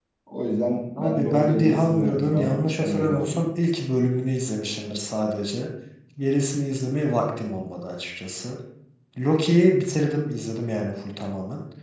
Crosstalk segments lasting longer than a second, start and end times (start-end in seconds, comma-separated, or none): 1.0-3.4